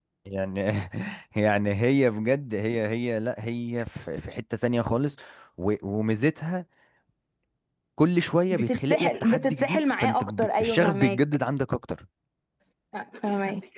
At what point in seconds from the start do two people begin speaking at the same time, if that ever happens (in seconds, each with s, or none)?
8.5 s